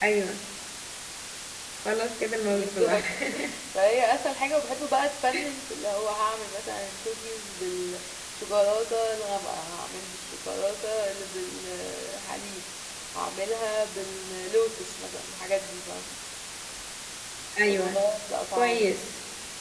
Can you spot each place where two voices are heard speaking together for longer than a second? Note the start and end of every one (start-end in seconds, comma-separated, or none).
none